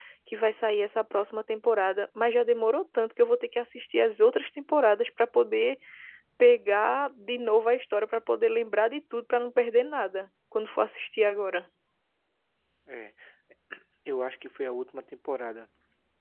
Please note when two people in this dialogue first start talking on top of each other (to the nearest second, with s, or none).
none